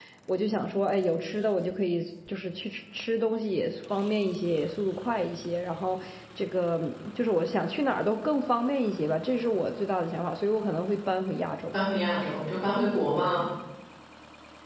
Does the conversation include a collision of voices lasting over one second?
No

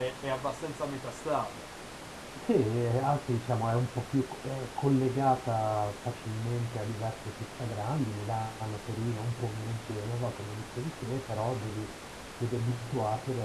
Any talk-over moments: No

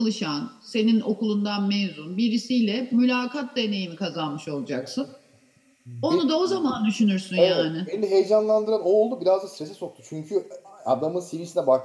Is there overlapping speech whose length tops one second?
No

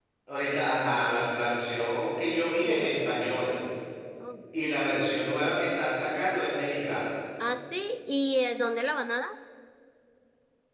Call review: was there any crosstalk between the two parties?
No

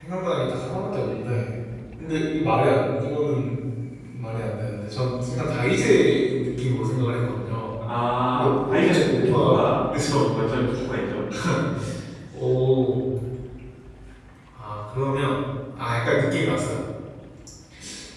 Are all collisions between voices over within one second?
No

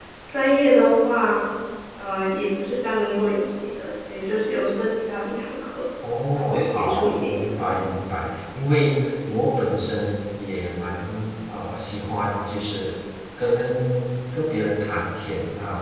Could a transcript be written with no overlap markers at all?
No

